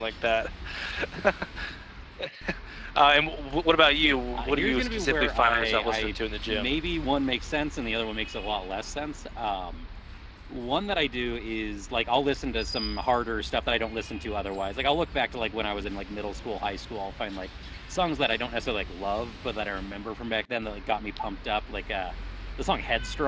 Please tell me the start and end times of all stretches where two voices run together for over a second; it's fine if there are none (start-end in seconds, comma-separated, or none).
4.3-6.7